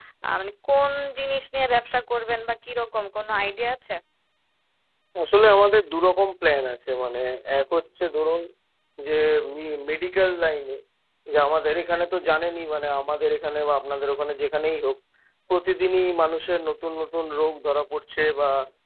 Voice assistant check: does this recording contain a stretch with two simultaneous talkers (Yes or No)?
No